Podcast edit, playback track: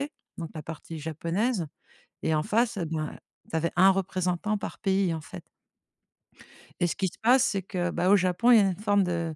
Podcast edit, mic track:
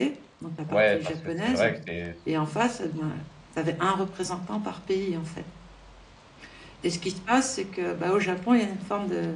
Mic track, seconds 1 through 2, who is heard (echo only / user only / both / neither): both